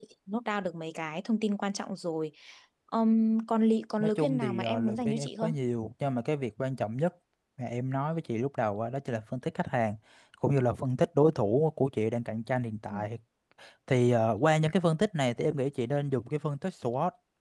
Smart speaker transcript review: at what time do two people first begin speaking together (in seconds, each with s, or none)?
4.0 s